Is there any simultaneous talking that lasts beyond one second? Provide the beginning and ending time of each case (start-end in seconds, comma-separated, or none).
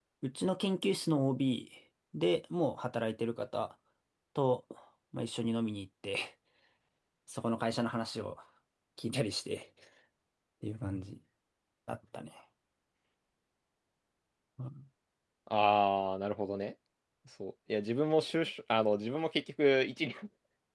none